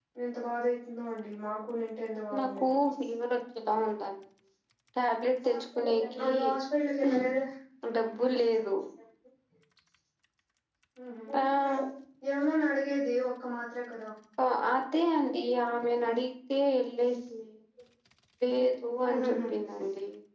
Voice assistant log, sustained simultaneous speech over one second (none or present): none